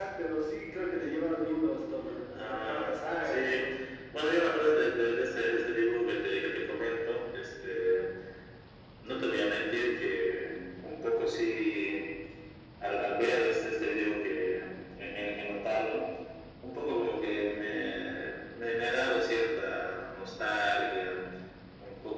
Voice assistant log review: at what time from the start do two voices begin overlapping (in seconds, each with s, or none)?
2.3 s